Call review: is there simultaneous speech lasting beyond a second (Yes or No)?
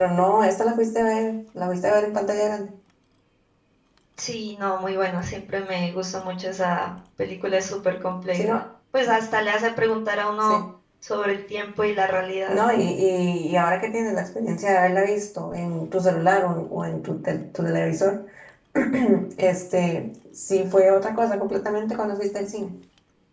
No